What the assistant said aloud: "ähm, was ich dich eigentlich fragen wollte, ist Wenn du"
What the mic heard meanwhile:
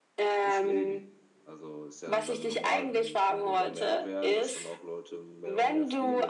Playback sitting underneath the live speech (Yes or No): No